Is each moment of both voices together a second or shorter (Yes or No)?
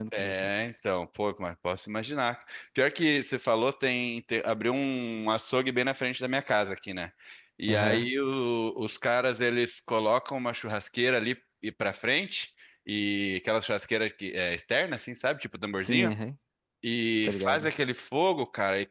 Yes